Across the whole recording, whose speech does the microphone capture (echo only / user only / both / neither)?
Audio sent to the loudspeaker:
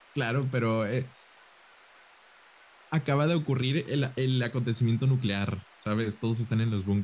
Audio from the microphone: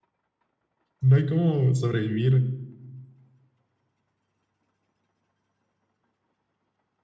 user only